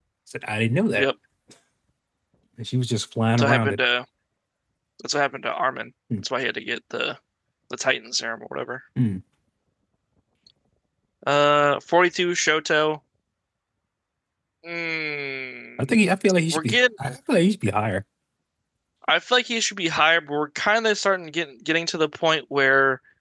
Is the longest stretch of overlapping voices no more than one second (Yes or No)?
Yes